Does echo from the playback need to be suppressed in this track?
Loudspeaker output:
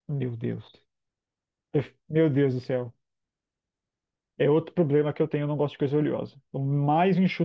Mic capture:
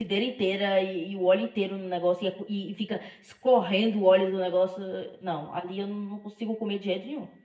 No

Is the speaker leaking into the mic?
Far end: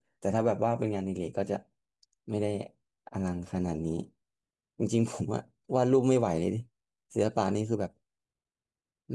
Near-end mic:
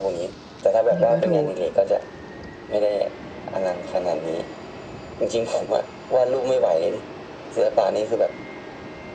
Yes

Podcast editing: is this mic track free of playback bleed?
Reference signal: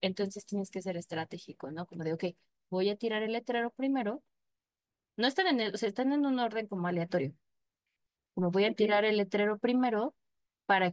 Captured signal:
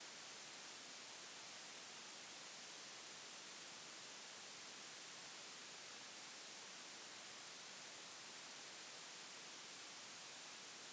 Yes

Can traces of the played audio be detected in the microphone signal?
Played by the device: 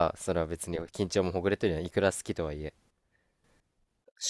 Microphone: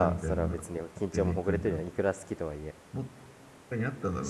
Yes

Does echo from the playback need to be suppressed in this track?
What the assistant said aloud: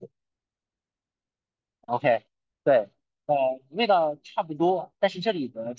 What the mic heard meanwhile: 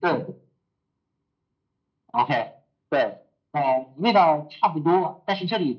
Yes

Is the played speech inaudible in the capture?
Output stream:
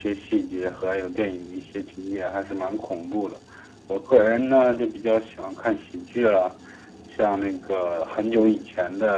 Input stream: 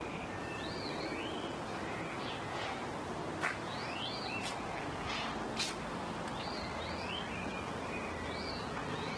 Yes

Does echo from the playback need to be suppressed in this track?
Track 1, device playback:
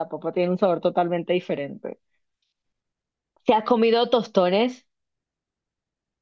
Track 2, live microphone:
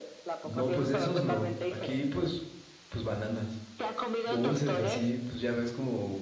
Yes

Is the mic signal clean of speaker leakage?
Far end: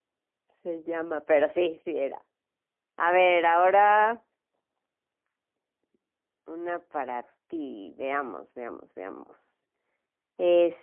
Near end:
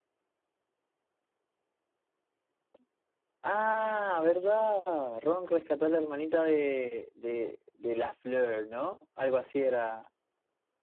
Yes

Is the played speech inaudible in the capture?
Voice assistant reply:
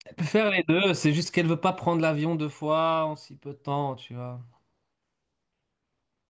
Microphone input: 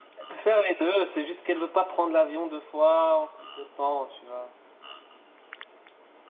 No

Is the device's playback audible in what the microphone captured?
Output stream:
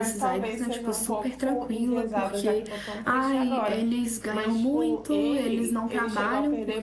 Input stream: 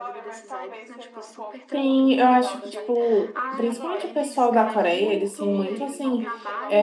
Yes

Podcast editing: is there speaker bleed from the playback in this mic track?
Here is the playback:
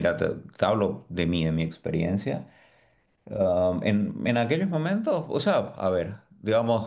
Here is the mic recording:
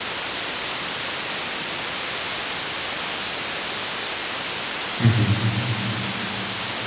No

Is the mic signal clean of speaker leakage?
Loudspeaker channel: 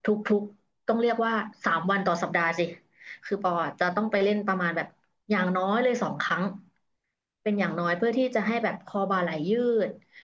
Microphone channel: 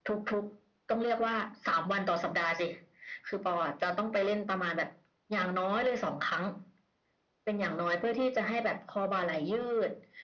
No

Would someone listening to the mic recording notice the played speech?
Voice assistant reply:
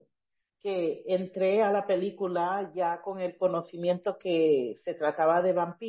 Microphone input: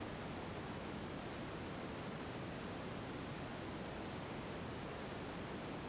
No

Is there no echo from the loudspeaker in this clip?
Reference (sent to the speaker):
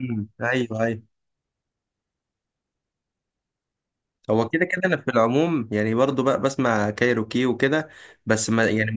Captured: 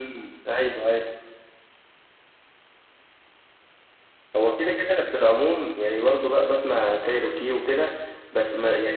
No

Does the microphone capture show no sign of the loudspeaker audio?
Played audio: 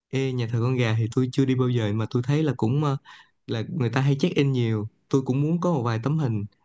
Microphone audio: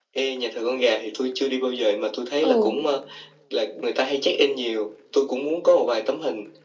No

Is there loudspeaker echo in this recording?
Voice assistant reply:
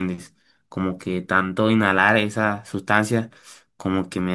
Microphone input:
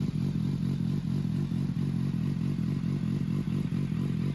No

